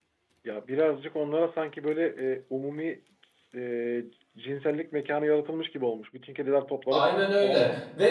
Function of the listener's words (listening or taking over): taking over